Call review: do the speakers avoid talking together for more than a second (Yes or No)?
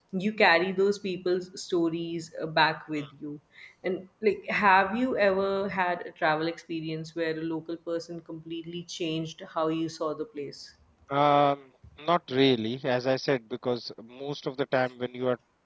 Yes